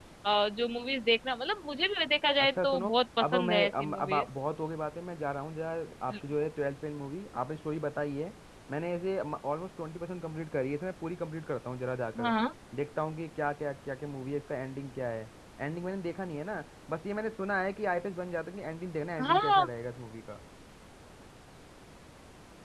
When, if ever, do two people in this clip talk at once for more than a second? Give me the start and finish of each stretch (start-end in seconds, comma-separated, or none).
2.4-4.2